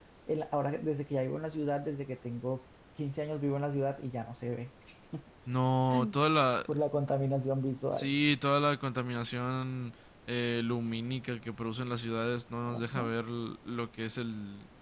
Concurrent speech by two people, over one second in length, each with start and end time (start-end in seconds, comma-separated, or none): none